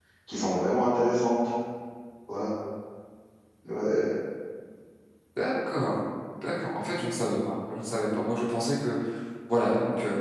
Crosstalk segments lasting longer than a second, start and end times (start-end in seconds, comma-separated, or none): none